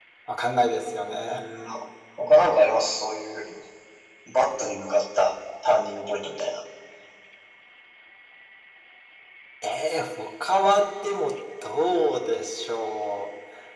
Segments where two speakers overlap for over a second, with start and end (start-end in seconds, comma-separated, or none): none